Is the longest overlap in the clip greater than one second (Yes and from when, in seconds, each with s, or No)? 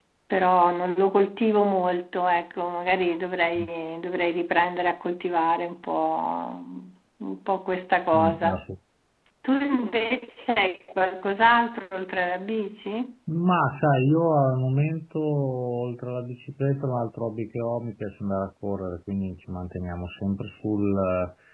No